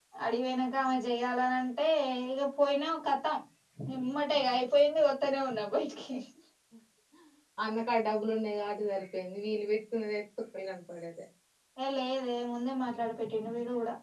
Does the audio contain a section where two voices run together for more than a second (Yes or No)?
No